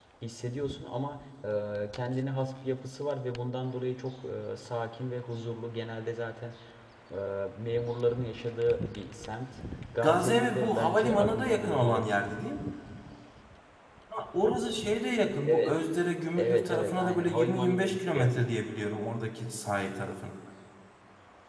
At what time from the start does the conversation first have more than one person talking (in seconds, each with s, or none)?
10.0 s